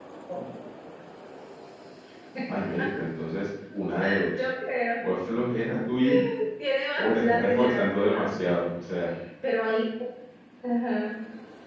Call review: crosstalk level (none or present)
present